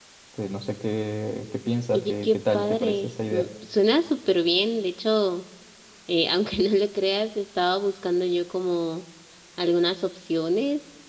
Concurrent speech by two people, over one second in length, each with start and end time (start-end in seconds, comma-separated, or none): 1.9-3.4